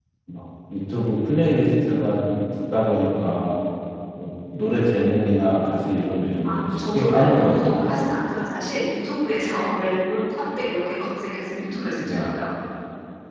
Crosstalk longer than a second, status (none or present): present